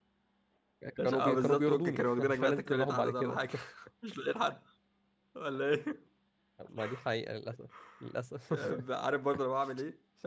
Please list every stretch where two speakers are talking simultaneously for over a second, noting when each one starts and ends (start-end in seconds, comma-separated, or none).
1.0-3.4